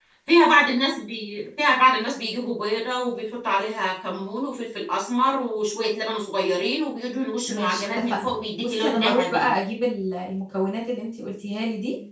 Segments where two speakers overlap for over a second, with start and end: 7.5-9.5

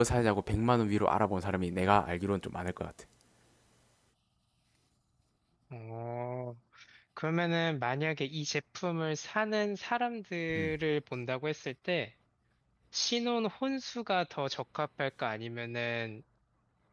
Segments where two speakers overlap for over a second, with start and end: none

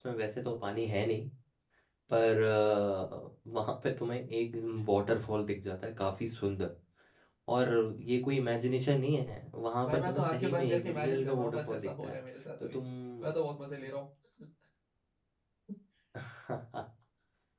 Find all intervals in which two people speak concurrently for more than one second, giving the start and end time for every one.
9.9-12.2

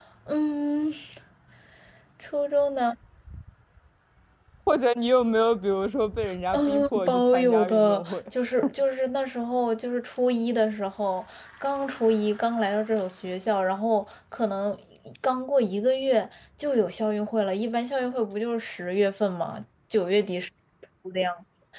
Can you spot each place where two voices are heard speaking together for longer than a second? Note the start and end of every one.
6.5-8.2

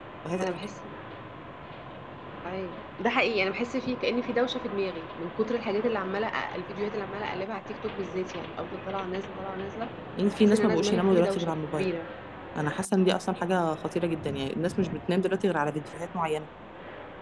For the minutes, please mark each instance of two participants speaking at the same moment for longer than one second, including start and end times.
10.3-11.9

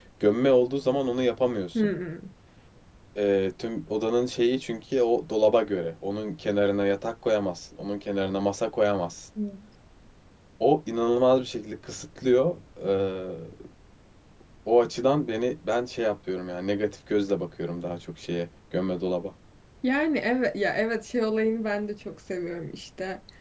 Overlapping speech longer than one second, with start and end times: none

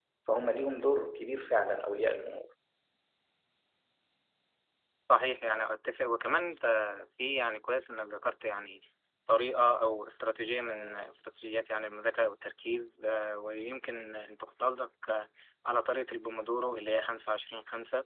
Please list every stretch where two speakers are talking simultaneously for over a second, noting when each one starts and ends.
none

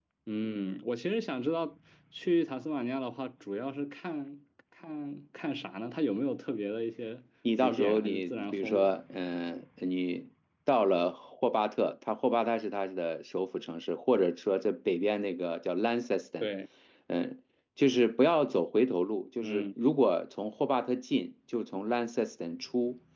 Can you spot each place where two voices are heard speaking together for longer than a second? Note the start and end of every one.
7.6-9.0

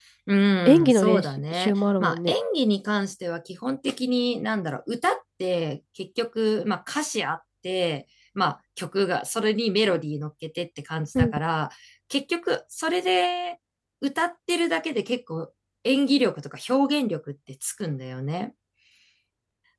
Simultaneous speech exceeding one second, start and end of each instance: 0.7-2.4

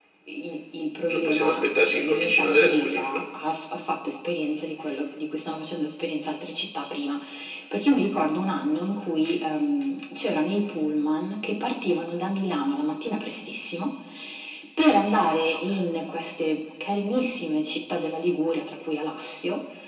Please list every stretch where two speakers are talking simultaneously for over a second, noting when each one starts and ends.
1.1-3.2

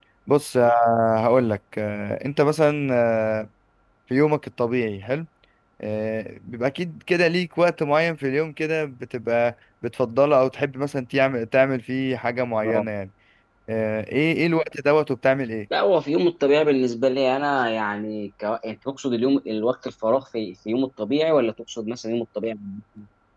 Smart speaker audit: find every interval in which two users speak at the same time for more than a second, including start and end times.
none

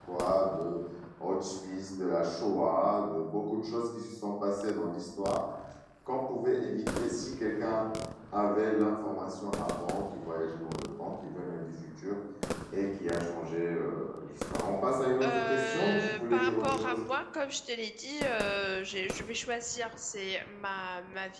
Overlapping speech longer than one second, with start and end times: 15.2-17.0

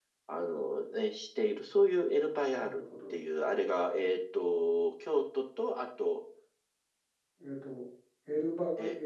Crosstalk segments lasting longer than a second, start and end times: none

